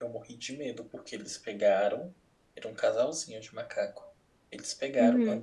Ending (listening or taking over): listening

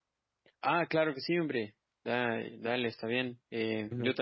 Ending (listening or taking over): listening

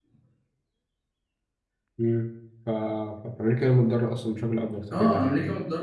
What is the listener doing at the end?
taking over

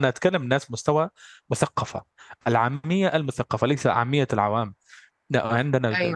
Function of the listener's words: listening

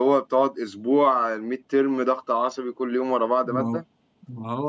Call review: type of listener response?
taking over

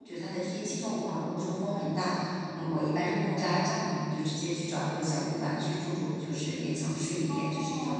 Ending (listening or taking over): taking over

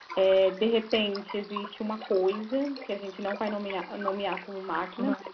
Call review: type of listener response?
listening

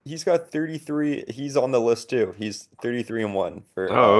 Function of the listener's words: taking over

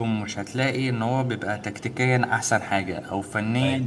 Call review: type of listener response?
listening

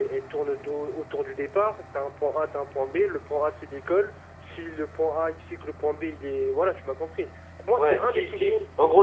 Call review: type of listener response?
taking over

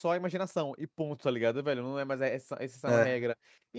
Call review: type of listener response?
listening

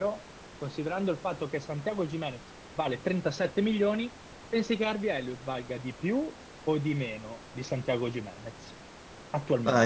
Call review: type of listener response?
taking over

